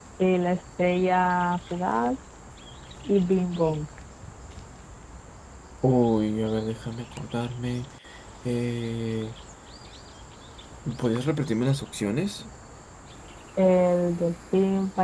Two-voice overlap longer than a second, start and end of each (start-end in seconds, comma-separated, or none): none